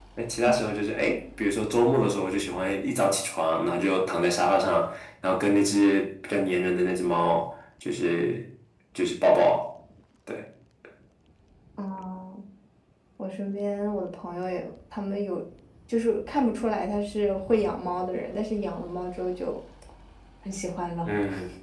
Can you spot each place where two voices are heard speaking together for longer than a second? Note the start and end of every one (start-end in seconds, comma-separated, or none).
none